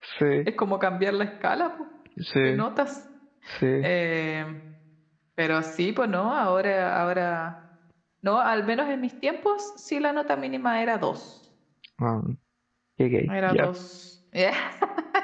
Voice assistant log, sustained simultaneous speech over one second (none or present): none